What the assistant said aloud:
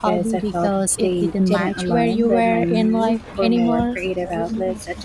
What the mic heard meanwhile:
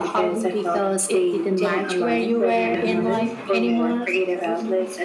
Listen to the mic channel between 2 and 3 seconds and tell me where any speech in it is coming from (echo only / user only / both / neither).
both